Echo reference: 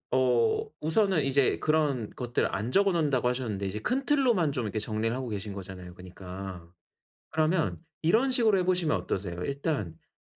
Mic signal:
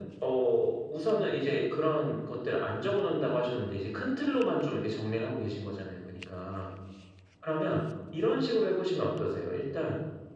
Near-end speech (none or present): none